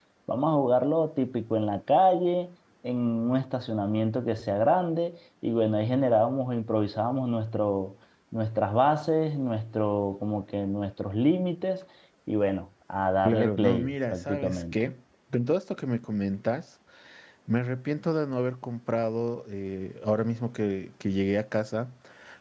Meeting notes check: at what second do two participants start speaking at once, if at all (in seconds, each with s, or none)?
13.2 s